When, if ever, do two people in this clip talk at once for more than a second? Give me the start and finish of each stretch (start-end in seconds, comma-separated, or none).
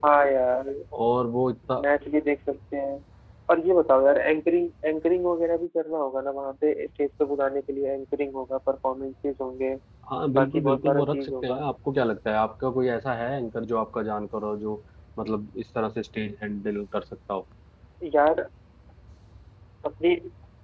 10.3-11.6